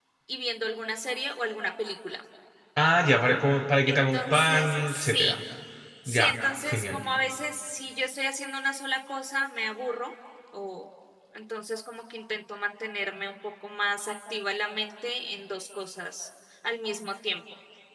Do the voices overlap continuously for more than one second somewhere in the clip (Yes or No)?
Yes